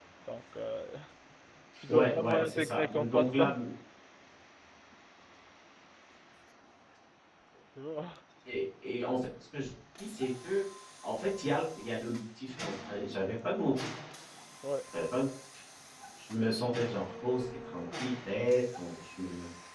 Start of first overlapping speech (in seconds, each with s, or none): 1.9 s